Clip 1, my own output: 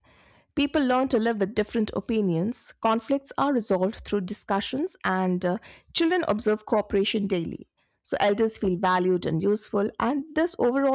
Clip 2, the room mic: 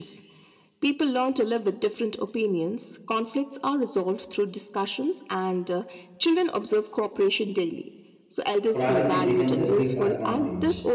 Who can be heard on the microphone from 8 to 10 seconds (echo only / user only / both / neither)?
both